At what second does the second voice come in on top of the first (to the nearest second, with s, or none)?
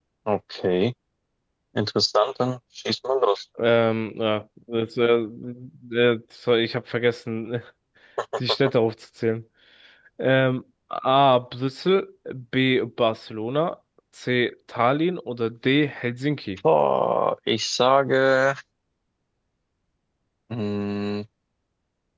none